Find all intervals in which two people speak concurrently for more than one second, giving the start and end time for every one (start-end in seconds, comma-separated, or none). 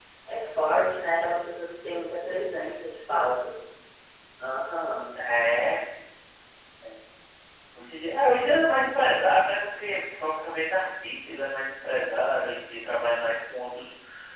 none